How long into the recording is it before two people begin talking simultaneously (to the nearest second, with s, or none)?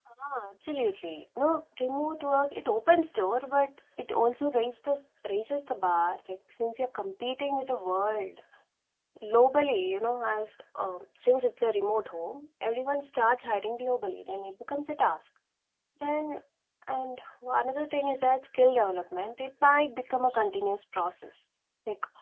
none